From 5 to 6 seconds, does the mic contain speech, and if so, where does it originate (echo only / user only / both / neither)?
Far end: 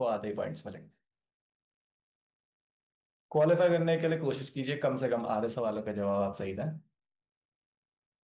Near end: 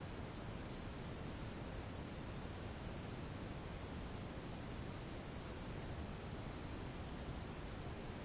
neither